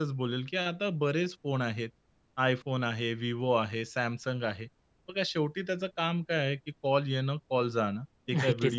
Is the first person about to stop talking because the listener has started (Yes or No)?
No